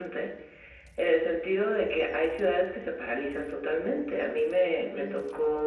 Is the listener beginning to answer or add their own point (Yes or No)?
No